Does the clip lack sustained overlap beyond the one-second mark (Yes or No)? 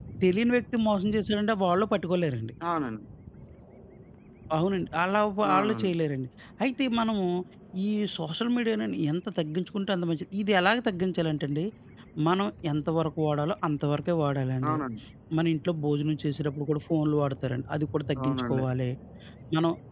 Yes